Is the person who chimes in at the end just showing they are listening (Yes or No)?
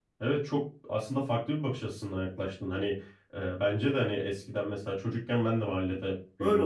No